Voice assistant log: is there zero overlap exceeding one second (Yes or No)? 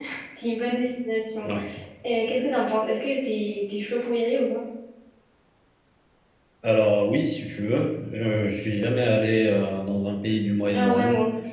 Yes